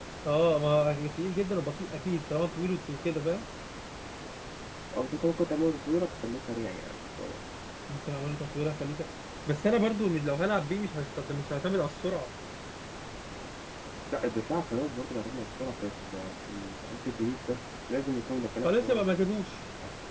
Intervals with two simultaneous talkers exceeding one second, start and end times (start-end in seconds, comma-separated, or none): none